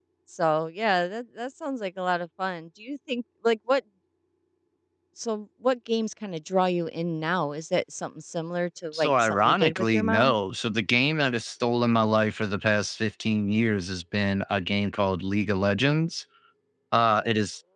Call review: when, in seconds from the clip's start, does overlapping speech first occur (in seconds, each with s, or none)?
8.9 s